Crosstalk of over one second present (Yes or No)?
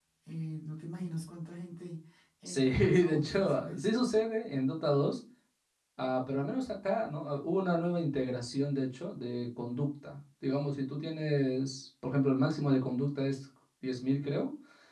Yes